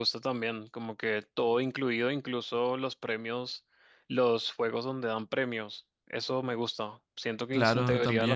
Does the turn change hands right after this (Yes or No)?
No